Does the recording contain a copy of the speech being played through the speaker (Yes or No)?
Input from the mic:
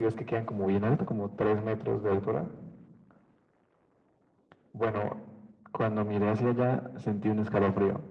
Yes